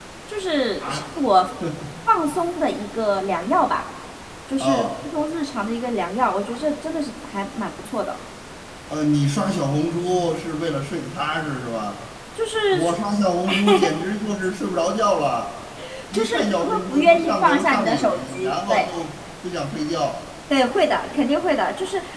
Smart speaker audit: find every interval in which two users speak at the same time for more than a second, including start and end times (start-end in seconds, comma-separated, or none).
16.1-18.9